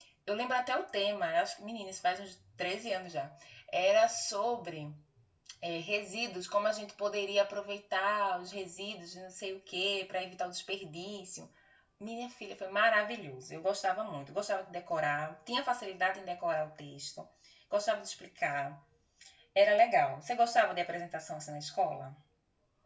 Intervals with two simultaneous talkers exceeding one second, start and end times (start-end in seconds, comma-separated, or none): none